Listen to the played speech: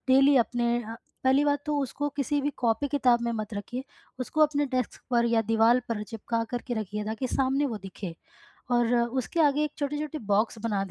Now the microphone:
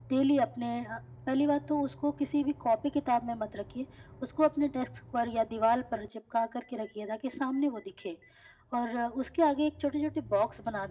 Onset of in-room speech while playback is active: none

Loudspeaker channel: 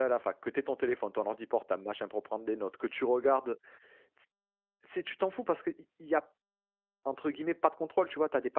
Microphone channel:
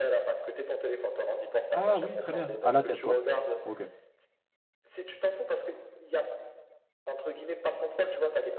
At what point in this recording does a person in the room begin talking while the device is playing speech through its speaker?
1.7 s

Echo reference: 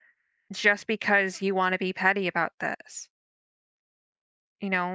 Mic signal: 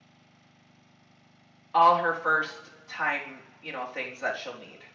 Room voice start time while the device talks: 1.7 s

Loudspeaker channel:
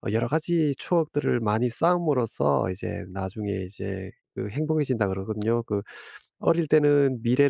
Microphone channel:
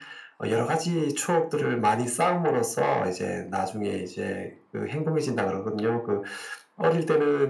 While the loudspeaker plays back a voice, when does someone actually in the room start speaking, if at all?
none

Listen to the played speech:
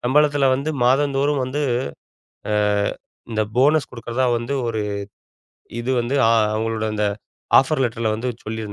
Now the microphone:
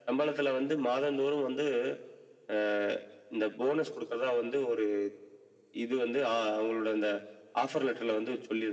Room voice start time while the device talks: none

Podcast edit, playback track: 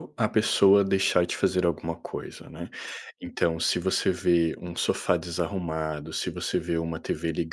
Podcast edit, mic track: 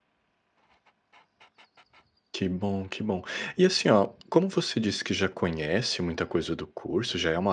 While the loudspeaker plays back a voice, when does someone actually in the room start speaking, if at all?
2.3 s

